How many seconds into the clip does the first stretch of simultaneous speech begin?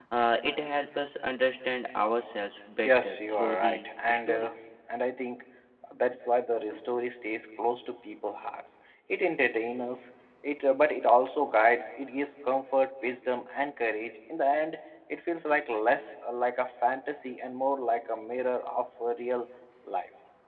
2.8 s

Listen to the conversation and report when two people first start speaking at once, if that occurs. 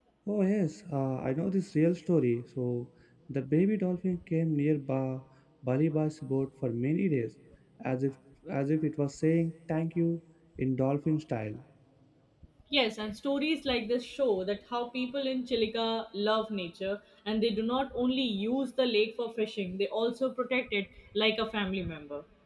none

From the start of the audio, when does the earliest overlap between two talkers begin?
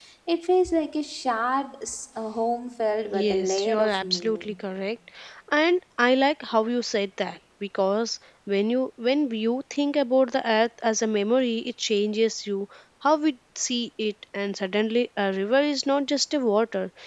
3.1 s

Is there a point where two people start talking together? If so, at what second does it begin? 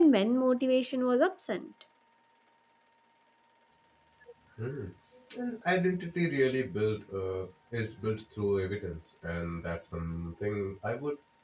none

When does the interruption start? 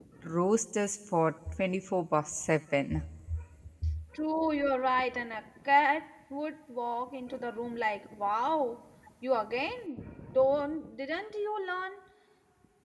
none

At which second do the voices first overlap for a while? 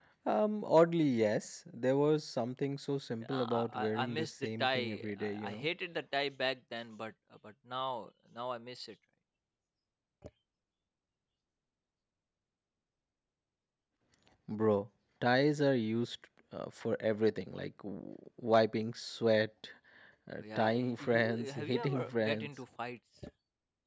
3.2 s

